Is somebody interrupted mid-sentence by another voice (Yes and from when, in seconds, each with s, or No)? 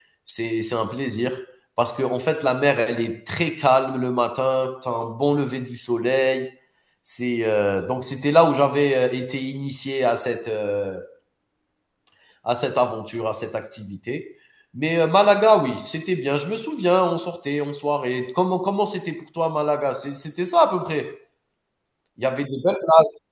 No